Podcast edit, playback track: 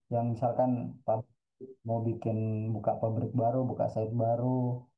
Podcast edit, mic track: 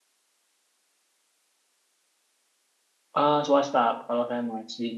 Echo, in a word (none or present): none